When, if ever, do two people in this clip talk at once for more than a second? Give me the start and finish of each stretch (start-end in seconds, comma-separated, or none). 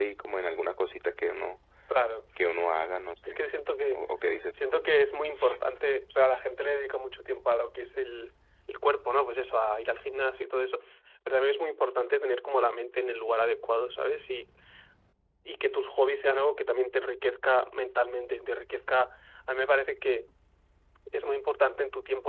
none